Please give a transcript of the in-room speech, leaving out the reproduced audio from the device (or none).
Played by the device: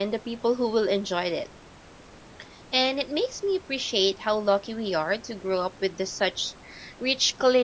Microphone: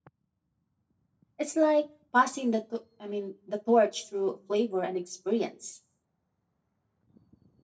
It's like passing the, to- I mean, the torch through flavor and experience.